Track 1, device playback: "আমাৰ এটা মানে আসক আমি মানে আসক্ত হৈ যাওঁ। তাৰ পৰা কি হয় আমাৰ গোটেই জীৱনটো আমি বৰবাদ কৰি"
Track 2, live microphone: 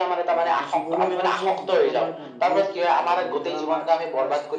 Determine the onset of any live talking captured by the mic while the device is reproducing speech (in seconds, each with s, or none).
0.3 s